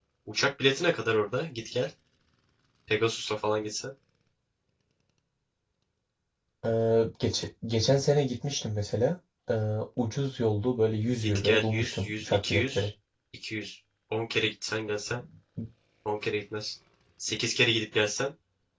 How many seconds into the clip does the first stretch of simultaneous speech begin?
11.2 s

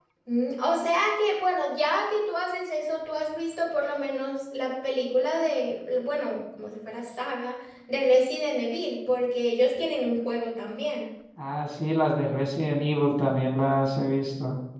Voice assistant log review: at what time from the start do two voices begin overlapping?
none

